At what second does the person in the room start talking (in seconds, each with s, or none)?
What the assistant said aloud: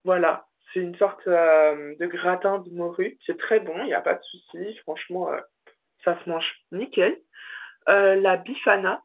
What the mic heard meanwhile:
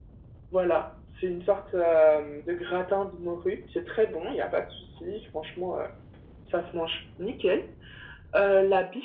none